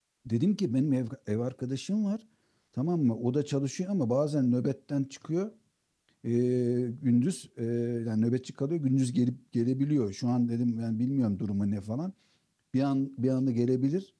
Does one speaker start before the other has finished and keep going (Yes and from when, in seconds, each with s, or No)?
No